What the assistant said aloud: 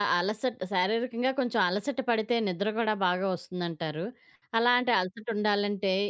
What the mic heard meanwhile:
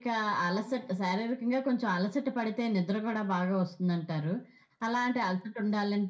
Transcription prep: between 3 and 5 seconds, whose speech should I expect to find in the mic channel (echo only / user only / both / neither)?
echo only